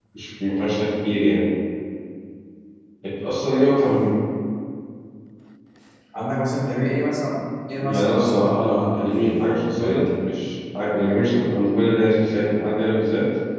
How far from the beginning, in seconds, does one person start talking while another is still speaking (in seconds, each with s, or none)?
7.8 s